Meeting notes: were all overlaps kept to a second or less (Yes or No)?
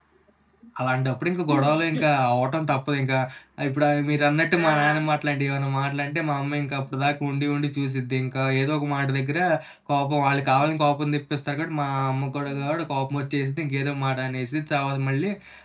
Yes